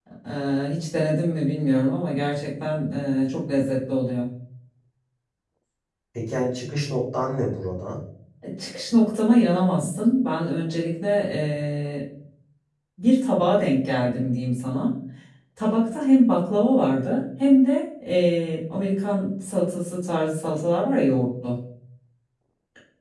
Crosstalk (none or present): none